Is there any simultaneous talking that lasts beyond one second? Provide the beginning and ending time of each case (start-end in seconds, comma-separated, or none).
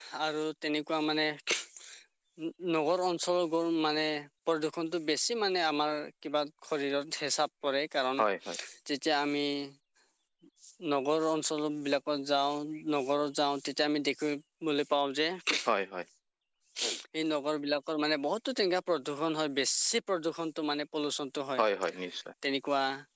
none